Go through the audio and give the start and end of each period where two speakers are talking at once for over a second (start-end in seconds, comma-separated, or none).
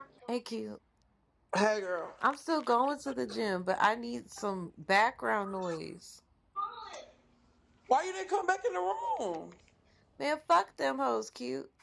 none